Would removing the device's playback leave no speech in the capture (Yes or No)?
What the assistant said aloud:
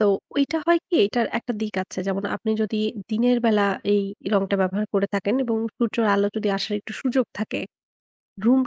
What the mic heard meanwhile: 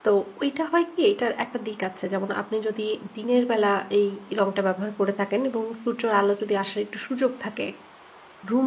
Yes